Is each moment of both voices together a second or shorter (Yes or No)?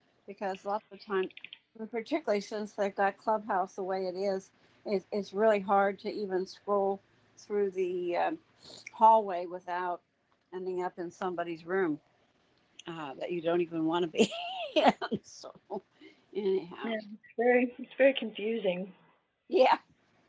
Yes